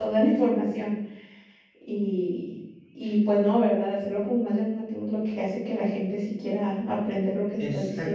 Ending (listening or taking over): taking over